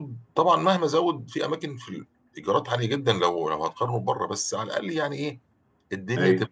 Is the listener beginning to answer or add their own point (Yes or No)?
No